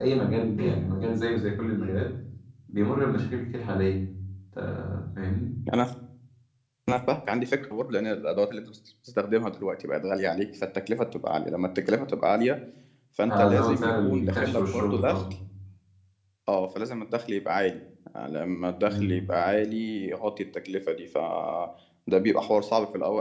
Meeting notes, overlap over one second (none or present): present